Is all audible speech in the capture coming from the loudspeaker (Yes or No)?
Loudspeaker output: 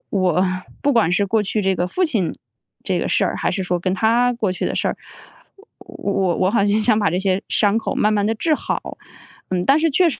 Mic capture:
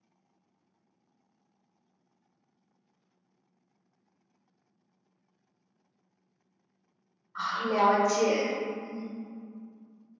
No